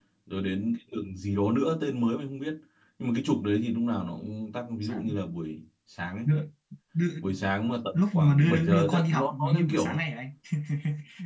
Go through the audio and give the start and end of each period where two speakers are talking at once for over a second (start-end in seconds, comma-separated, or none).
7.9-10.0